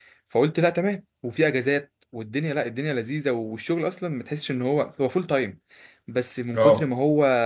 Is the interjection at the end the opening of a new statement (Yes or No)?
No